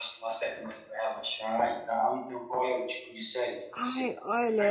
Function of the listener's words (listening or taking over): taking over